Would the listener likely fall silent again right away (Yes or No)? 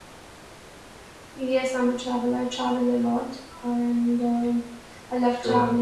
Yes